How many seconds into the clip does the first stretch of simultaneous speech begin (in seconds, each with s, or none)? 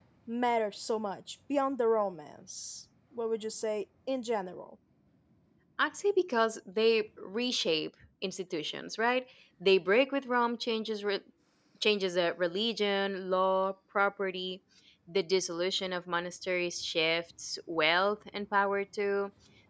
none